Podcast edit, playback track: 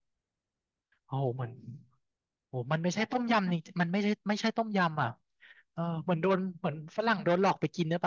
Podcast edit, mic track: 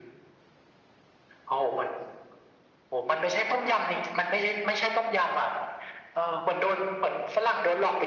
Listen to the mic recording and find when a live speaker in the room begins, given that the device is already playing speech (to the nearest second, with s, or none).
none